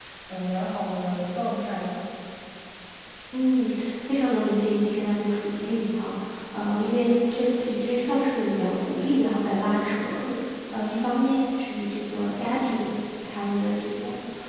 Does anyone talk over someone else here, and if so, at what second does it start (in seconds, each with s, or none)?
none